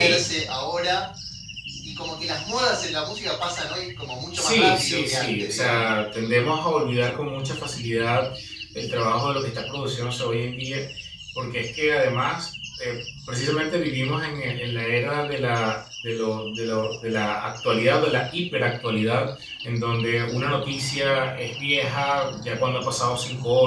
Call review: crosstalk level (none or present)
present